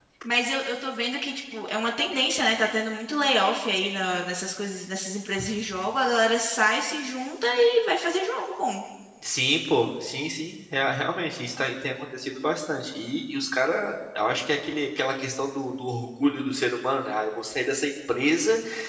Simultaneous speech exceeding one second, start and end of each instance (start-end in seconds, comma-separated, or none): none